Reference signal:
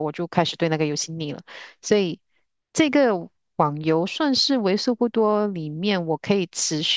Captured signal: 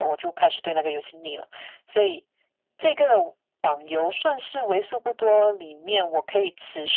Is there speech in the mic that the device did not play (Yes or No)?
No